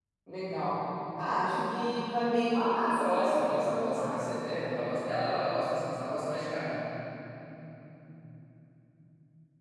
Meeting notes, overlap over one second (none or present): present